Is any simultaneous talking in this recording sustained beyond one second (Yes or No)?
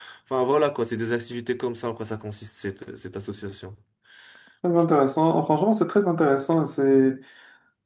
No